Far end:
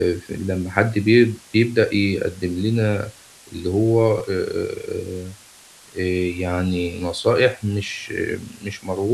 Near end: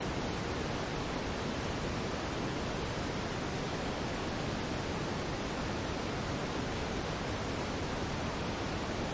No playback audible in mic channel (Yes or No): Yes